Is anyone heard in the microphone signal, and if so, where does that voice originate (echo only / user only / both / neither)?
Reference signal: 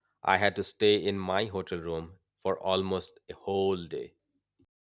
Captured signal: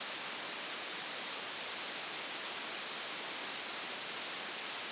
neither